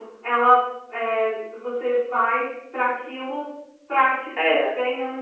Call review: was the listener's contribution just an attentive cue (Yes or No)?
Yes